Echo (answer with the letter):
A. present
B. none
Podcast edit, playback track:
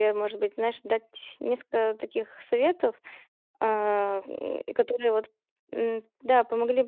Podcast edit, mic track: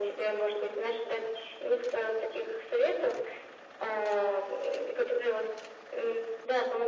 A